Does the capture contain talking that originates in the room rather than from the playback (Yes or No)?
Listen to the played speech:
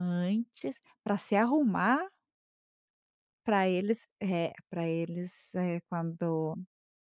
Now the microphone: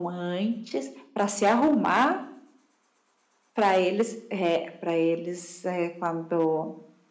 No